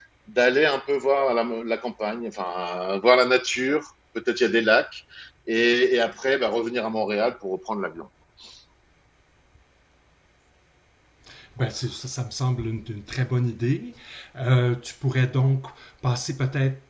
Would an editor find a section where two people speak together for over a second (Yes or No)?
No